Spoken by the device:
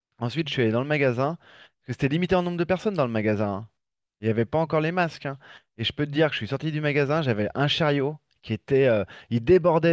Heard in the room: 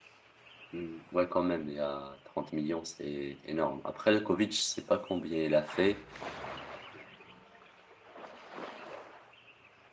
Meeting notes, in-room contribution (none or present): present